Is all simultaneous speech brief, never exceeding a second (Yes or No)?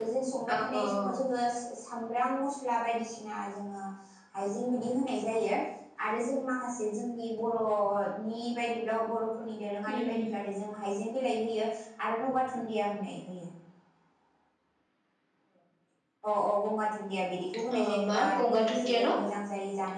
No